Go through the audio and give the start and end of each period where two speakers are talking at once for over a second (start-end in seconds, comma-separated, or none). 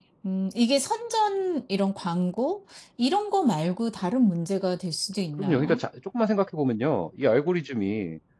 none